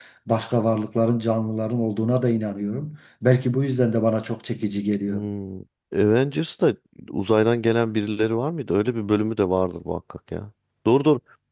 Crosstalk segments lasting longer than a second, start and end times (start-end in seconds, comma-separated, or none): none